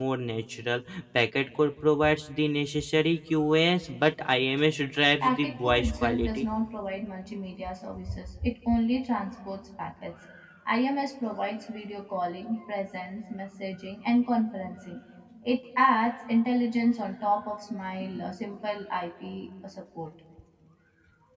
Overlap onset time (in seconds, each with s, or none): 5.2 s